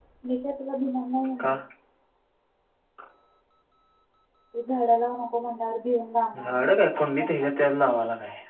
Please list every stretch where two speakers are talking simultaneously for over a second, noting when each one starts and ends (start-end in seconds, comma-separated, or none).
6.4-7.7